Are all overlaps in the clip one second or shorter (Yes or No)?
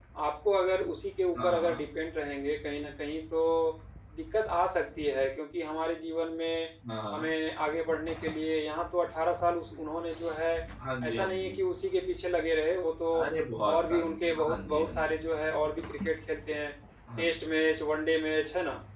No